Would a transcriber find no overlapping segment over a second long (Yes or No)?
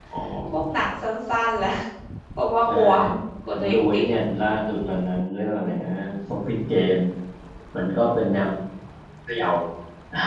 Yes